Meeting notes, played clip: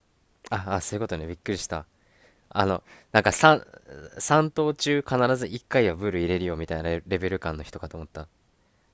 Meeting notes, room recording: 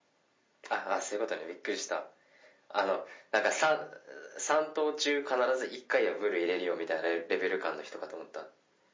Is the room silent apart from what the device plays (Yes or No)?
Yes